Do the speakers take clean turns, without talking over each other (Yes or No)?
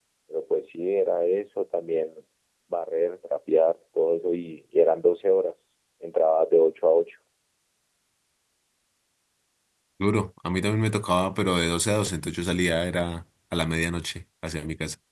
Yes